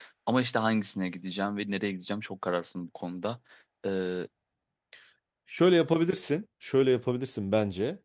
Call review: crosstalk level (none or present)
none